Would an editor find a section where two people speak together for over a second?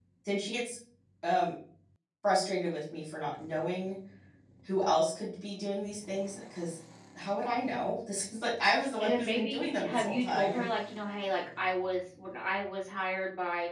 Yes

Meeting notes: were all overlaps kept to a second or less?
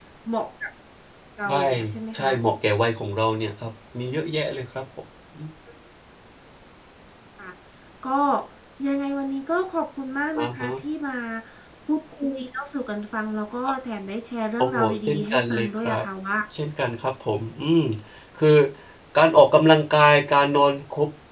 No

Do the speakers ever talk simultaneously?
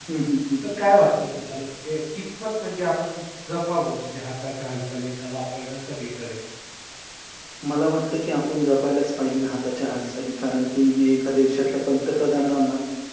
No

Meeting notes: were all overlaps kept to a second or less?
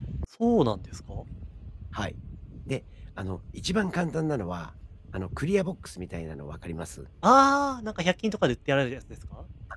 Yes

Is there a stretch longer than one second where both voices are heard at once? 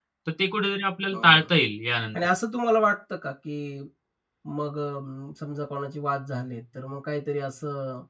No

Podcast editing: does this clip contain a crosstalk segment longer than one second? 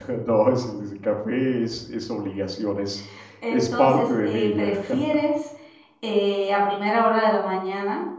Yes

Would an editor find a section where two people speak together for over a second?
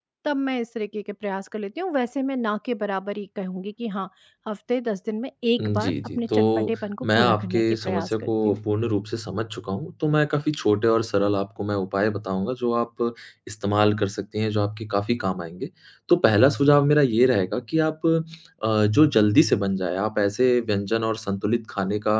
Yes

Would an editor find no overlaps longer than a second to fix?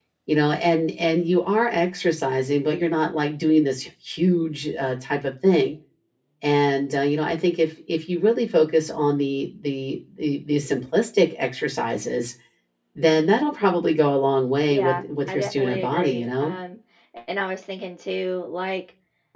No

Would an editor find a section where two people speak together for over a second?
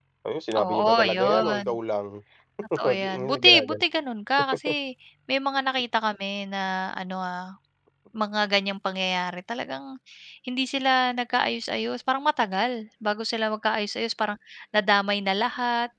Yes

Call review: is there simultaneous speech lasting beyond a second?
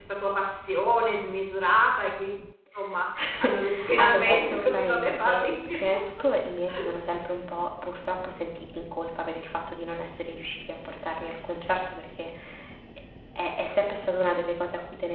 Yes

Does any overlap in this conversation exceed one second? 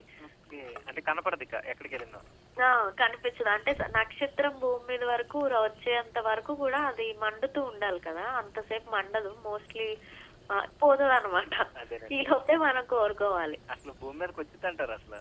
No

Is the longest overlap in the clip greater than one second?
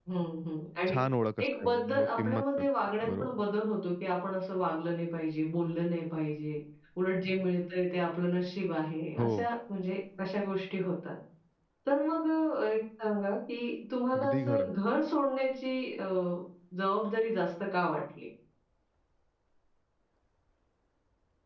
Yes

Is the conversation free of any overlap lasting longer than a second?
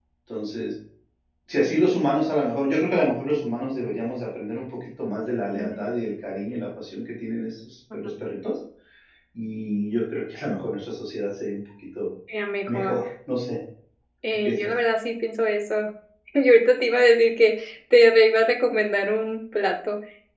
Yes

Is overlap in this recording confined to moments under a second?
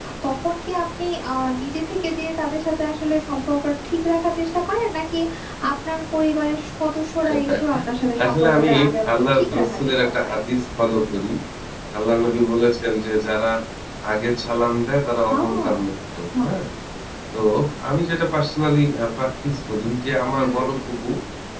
No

